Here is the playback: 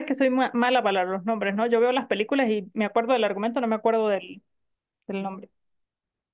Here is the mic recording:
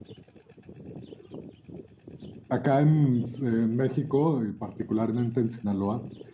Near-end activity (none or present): present